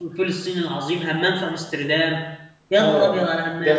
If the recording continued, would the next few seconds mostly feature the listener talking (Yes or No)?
Yes